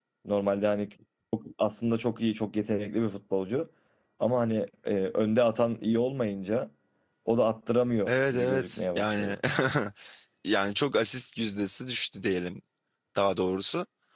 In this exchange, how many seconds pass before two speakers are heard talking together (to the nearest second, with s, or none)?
8 s